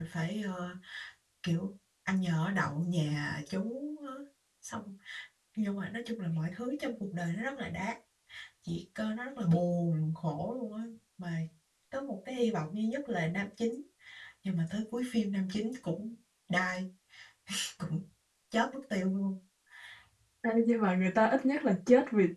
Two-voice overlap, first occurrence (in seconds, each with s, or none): none